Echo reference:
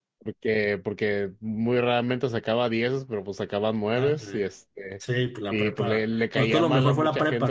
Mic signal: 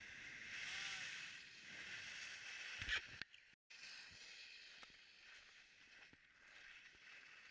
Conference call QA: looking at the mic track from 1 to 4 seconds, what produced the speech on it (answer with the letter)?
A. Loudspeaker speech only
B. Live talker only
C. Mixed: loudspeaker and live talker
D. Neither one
D